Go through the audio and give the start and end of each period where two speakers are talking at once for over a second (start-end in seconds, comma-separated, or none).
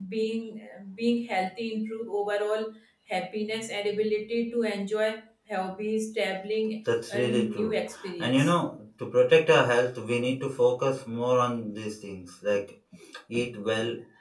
7.1-8.5